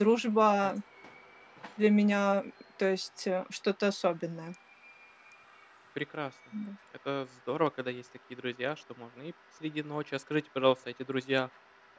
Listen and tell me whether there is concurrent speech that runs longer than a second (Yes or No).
No